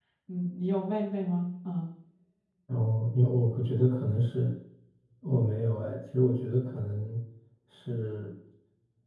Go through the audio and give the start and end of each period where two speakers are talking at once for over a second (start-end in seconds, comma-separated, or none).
none